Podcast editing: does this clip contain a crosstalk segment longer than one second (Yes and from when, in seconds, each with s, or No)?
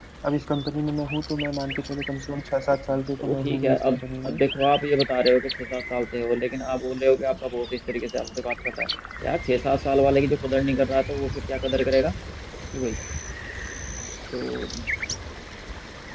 Yes, from 2.9 s